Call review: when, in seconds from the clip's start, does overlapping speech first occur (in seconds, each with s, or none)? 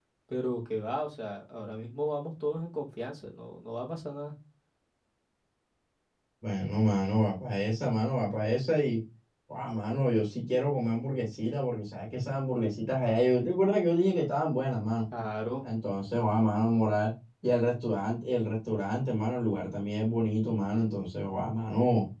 none